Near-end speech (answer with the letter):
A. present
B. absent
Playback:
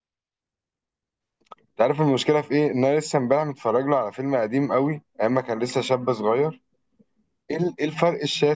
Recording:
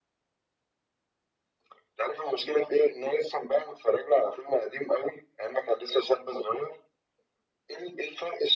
B